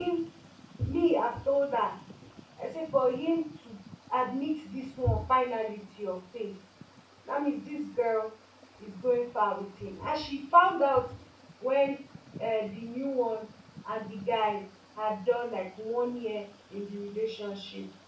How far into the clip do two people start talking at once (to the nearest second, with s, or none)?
none